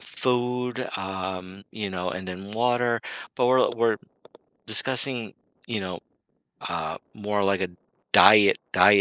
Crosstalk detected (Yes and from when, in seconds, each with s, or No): No